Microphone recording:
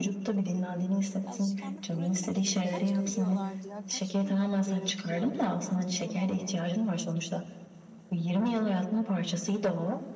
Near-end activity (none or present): present